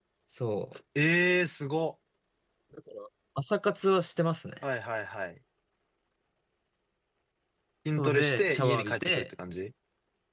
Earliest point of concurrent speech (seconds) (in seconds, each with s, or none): 8.0 s